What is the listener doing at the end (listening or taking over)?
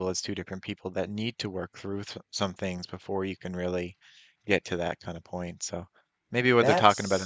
listening